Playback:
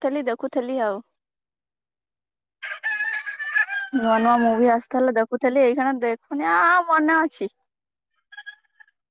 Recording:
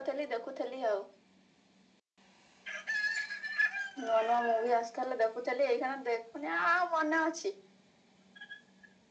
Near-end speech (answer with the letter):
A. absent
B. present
A